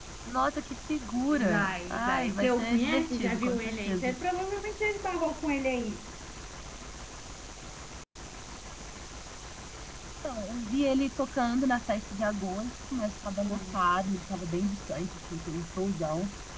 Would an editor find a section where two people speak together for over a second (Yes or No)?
Yes